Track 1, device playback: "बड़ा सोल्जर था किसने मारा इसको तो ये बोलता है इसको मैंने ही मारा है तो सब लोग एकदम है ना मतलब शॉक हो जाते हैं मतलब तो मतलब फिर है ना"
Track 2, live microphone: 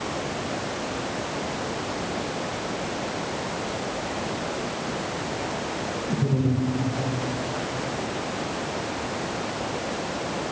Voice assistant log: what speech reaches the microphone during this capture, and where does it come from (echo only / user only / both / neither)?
user only